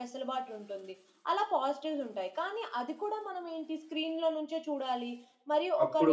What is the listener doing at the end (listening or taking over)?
listening